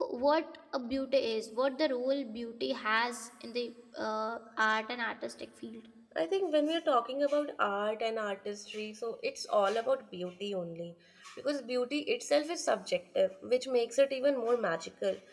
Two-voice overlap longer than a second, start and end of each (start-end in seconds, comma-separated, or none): none